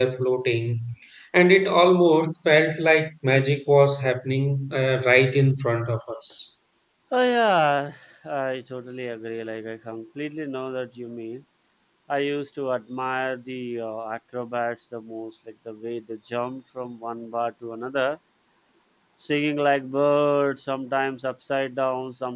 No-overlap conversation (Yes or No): Yes